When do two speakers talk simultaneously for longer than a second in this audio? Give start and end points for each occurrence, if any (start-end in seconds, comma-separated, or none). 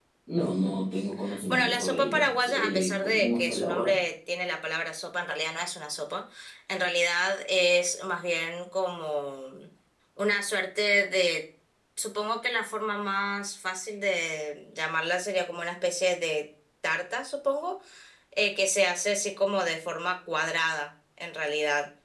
1.5-3.9